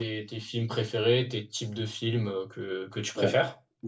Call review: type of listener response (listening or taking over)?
taking over